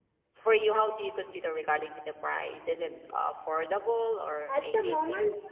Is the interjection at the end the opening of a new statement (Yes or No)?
Yes